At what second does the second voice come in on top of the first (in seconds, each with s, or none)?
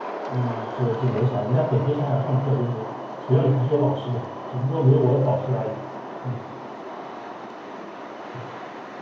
none